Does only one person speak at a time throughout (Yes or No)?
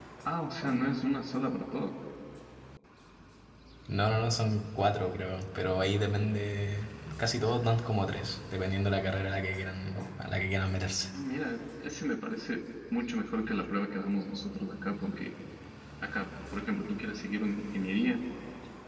Yes